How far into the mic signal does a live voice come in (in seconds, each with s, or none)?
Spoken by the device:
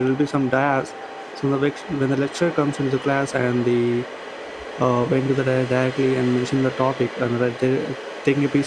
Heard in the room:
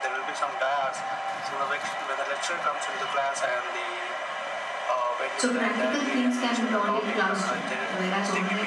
5.3 s